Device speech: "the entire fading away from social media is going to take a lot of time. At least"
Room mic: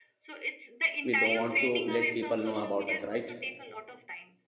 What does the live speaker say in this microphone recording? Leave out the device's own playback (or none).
we don't want to let people know about us right